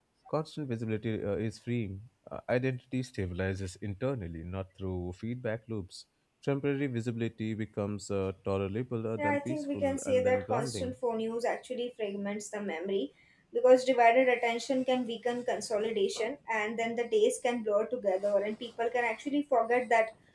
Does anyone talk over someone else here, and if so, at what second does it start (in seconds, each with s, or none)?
9.2 s